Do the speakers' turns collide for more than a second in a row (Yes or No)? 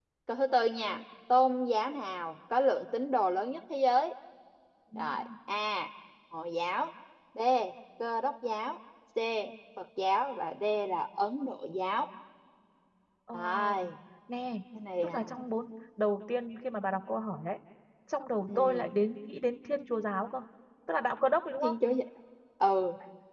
No